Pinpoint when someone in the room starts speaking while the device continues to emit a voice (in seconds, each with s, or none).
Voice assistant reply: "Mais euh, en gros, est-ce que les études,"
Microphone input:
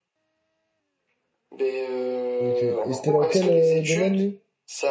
2.4 s